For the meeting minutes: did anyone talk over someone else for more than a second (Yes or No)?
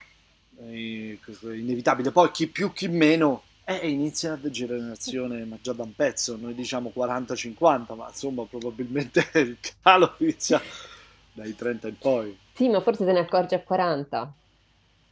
No